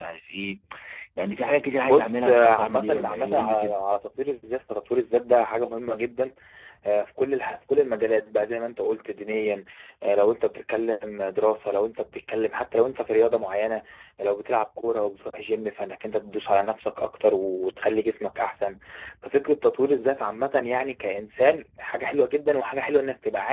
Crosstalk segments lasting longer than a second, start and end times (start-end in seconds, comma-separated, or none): 1.8-3.7